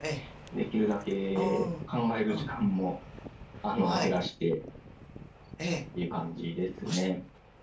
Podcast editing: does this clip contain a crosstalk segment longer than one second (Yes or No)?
No